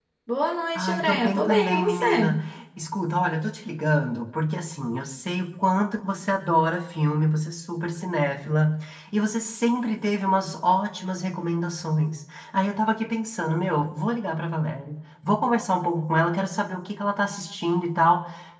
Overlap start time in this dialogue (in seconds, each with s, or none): 0.8 s